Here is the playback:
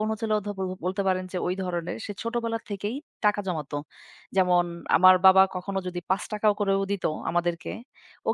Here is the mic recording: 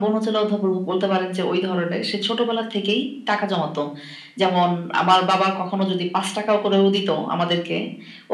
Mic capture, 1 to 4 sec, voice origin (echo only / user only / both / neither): echo only